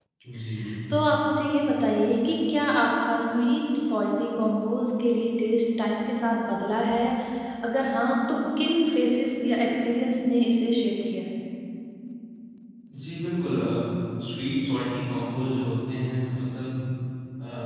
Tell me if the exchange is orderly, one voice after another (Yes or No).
Yes